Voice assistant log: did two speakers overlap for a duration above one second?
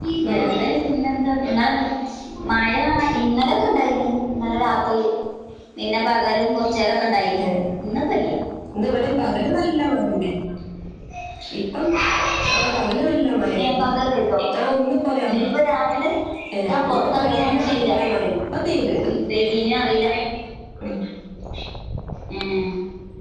Yes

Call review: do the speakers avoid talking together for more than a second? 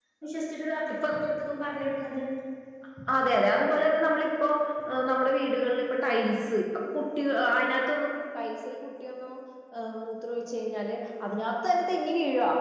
Yes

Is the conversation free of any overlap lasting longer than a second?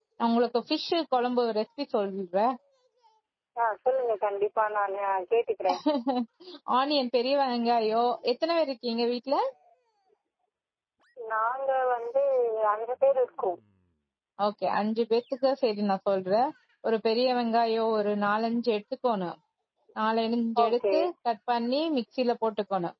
Yes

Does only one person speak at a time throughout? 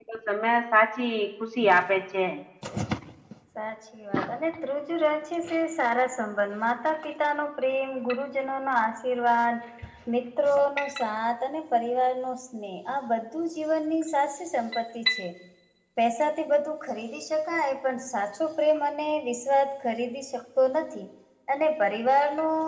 Yes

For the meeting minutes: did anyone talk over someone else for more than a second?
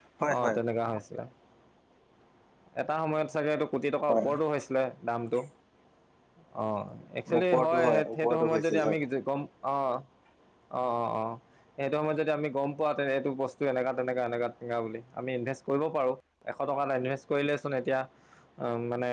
Yes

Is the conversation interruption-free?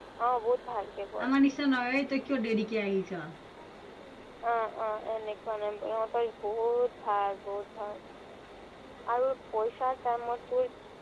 Yes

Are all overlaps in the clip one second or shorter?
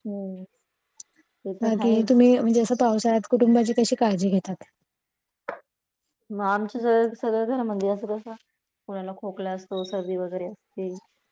Yes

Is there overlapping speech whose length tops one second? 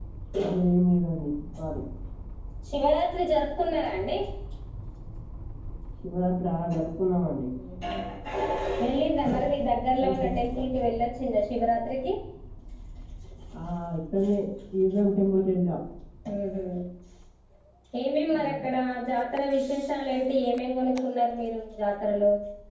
No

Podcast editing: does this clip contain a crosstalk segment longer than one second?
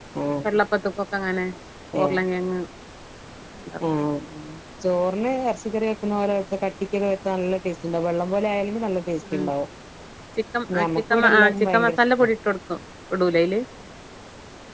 Yes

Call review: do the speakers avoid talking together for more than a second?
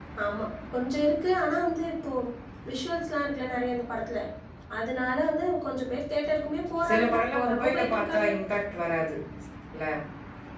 No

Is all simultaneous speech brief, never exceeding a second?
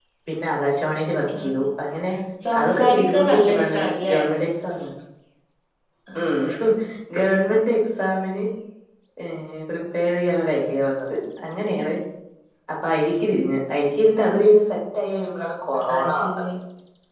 No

